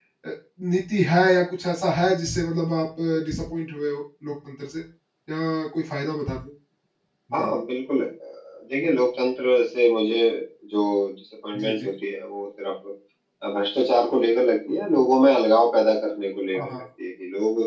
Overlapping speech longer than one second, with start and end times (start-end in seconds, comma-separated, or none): none